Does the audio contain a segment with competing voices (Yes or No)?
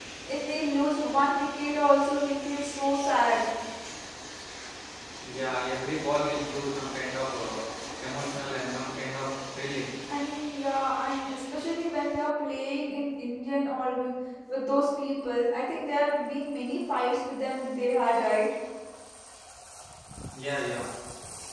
No